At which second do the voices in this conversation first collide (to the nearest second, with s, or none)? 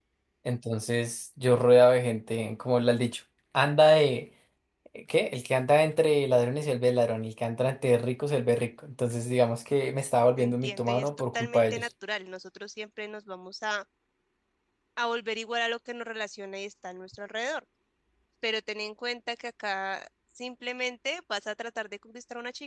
10 s